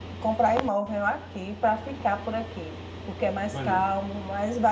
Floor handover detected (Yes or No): No